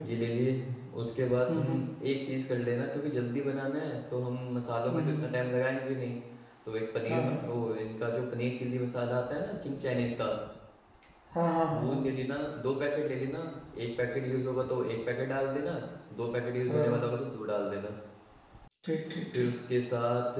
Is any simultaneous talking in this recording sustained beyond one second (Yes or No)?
No